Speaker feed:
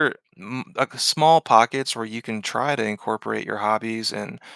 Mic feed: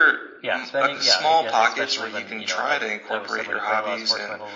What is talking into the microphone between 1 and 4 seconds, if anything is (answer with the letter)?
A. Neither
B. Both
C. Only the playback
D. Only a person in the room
B